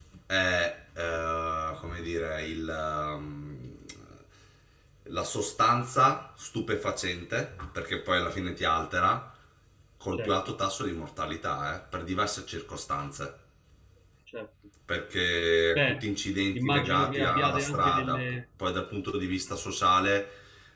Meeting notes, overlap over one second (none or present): present